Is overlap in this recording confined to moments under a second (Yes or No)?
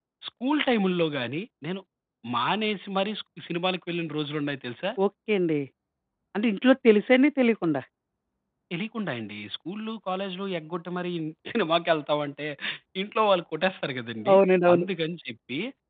Yes